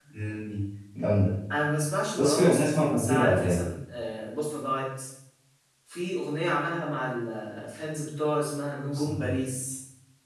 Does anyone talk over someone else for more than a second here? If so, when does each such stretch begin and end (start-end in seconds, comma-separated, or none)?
2.2-3.6